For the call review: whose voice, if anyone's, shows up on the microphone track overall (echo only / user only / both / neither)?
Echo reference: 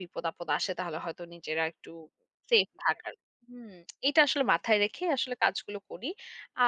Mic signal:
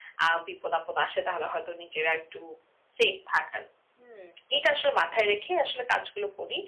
echo only